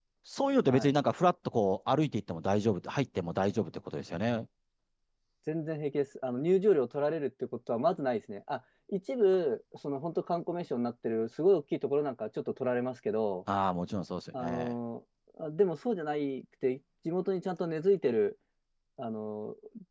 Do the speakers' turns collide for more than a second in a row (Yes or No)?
No